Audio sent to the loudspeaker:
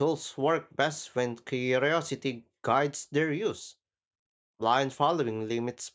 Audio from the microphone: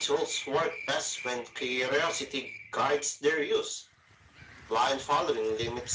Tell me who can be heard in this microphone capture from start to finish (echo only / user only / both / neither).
echo only